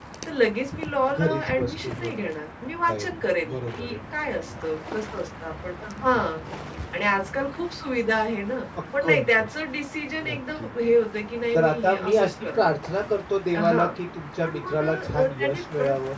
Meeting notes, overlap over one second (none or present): present